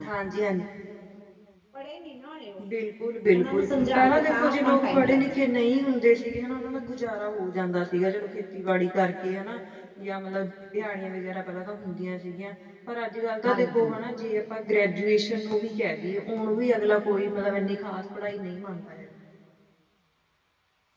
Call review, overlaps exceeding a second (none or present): present